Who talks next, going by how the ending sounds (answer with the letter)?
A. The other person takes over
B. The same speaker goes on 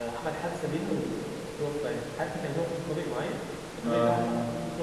B